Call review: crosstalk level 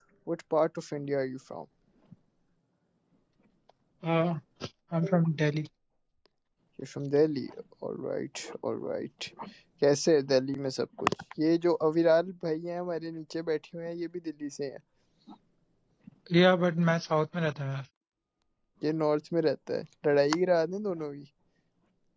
none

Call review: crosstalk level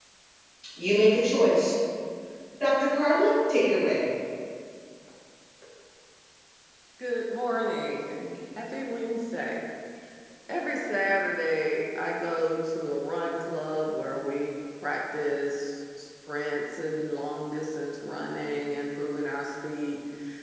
none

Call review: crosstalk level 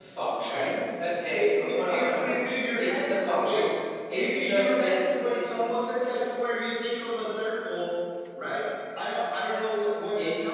present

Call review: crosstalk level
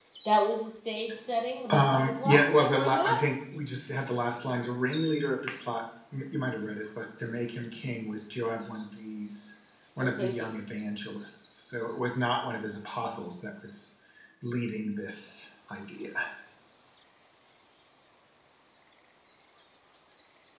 present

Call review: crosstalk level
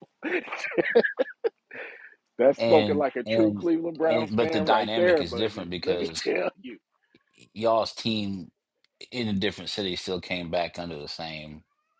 present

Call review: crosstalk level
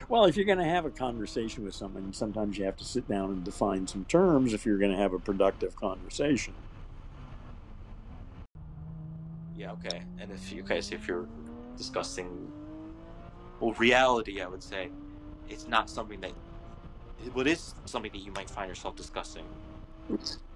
none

